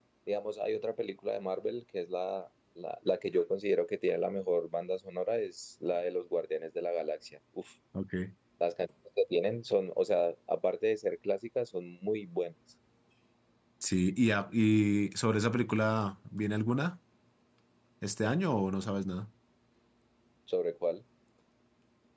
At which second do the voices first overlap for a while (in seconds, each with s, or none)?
none